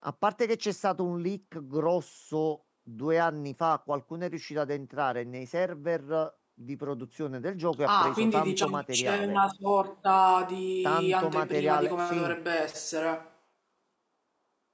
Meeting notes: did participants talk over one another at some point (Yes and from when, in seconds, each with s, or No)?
Yes, from 7.9 s